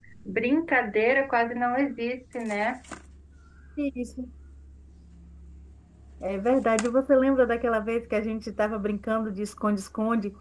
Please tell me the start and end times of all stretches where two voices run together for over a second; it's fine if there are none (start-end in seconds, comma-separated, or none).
none